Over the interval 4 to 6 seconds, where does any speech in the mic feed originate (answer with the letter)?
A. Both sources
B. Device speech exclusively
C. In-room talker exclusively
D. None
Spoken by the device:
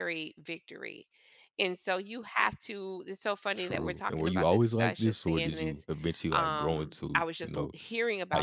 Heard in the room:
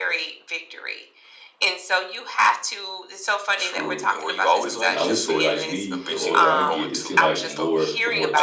A